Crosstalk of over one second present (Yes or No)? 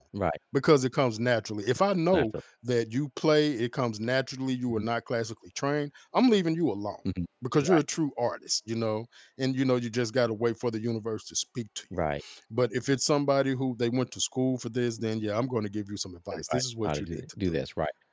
Yes